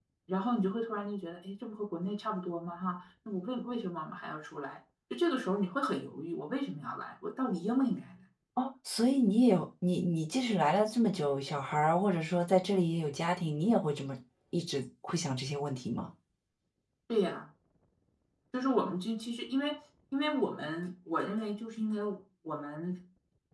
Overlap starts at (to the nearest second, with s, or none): none